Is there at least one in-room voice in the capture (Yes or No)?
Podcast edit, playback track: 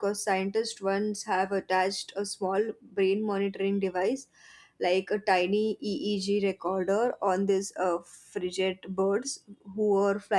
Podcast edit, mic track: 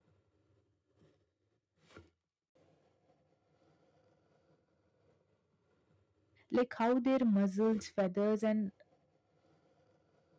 Yes